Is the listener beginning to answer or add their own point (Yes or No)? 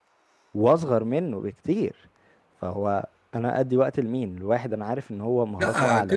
Yes